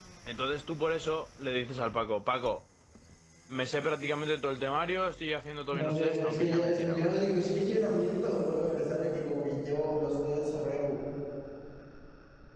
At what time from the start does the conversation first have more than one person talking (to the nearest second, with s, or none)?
6 s